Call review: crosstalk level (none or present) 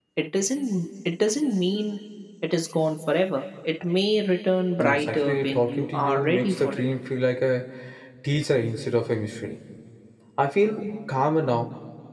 present